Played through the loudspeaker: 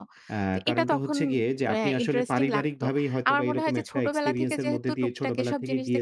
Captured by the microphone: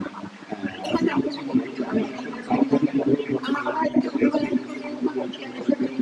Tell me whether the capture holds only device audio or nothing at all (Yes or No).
Yes